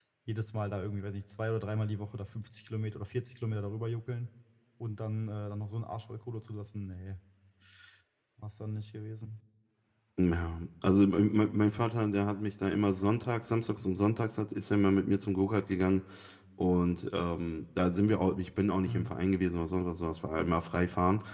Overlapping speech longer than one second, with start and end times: none

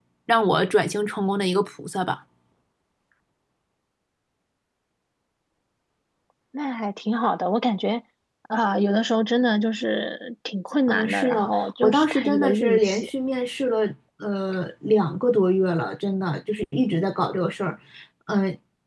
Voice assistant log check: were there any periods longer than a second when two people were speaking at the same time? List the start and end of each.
10.9-13.1

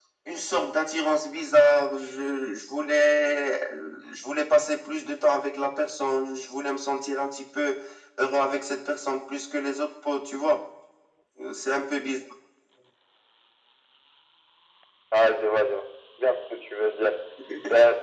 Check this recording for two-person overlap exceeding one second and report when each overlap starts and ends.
none

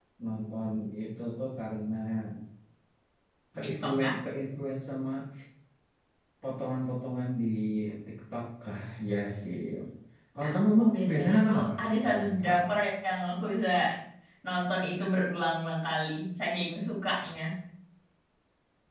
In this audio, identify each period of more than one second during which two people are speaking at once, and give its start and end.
10.4-12.7

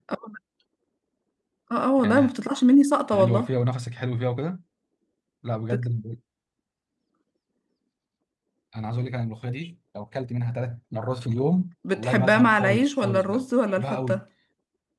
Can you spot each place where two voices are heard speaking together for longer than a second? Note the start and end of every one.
11.9-14.2

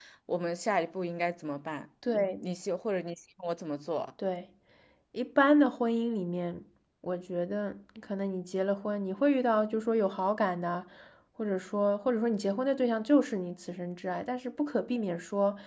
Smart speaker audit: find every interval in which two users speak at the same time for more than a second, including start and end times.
none

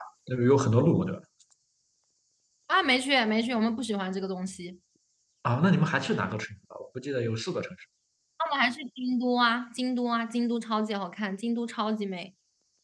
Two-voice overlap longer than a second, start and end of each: none

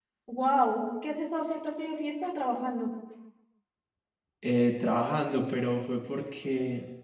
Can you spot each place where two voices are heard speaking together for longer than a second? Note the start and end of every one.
none

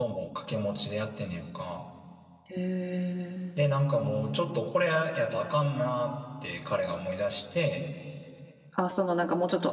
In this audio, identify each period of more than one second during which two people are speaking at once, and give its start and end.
none

